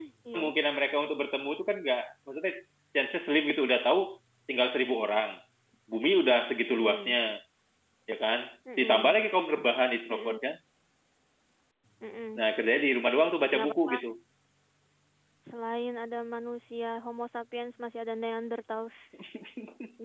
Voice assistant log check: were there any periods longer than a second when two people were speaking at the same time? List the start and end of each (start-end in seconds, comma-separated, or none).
none